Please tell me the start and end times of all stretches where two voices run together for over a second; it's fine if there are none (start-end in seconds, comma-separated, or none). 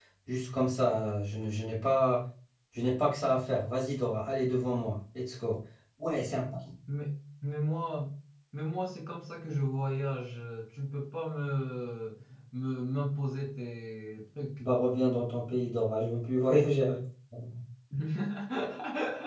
none